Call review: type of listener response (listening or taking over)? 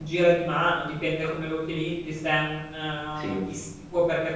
listening